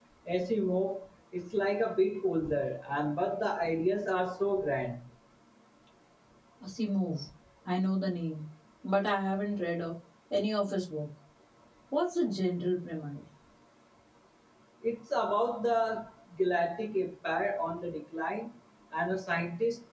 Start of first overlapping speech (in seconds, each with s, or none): none